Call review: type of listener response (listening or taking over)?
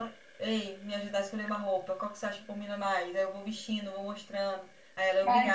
taking over